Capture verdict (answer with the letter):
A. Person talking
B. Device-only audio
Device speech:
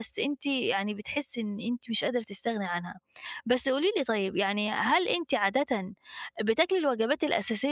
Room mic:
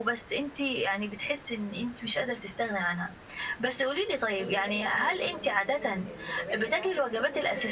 A